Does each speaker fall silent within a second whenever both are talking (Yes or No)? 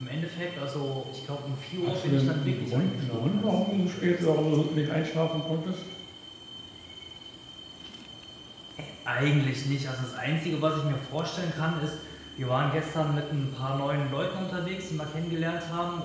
No